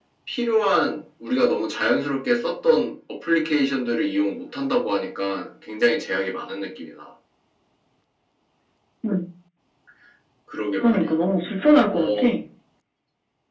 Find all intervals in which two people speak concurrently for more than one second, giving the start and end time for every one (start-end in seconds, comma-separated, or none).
none